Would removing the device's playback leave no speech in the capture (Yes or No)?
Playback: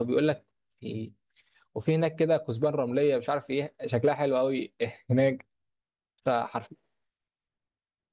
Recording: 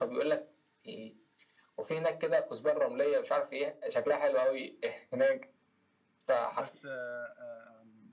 No